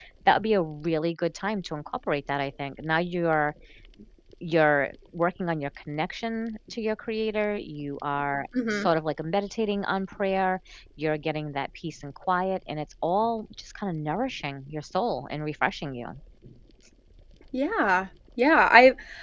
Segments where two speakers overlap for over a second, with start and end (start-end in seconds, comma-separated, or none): none